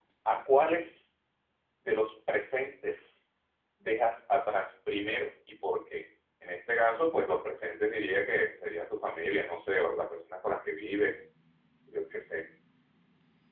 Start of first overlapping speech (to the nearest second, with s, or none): none